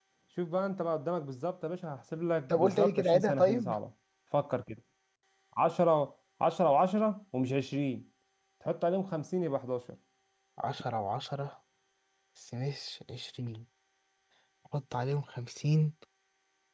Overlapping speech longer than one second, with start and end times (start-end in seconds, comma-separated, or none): 2.5-3.7